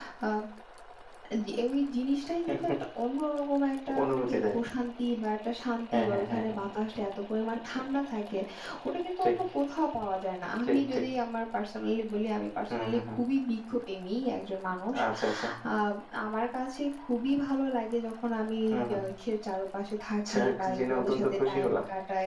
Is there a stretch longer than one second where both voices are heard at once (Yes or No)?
Yes